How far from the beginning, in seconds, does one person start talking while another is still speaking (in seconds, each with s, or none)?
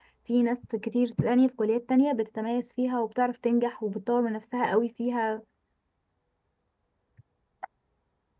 none